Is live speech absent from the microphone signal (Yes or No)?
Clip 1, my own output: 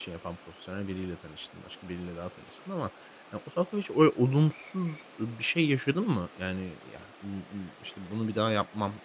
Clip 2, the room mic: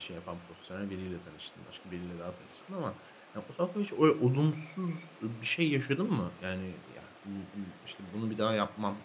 Yes